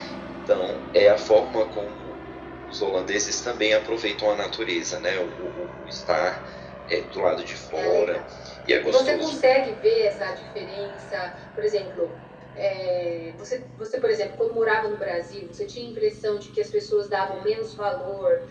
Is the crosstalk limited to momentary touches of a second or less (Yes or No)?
Yes